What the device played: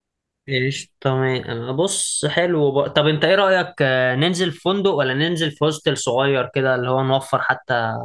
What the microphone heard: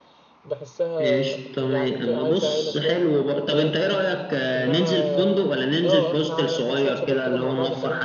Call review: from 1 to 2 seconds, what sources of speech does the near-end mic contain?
both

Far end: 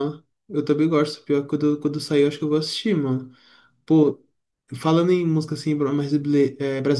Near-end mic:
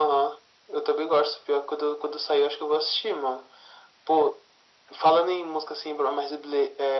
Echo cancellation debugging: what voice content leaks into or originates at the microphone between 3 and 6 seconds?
echo only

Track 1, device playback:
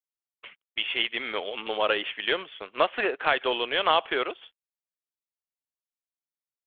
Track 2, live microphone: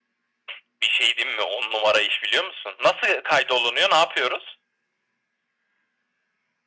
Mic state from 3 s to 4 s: echo only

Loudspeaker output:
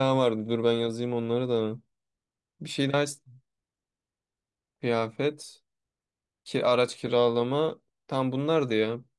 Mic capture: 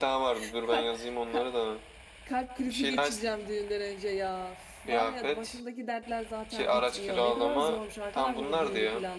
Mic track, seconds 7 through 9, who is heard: both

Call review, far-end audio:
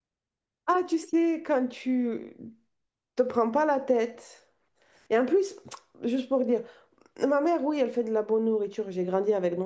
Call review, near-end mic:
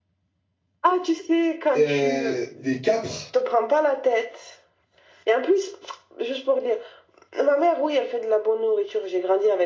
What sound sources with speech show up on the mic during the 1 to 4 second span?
both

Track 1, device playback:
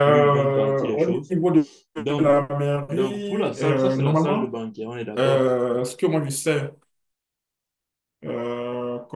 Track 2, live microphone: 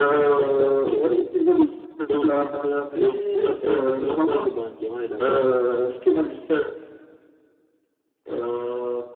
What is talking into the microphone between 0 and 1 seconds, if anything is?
echo only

